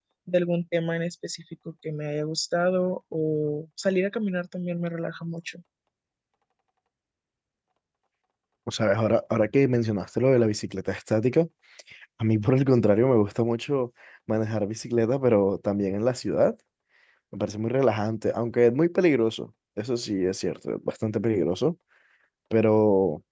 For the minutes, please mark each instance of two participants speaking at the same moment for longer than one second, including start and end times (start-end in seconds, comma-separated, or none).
none